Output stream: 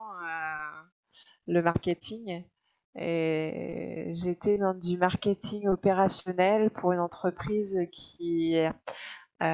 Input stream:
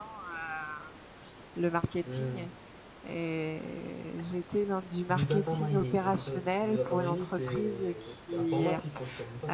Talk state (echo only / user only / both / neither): both